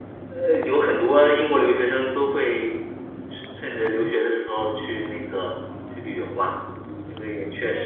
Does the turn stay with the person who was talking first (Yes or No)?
No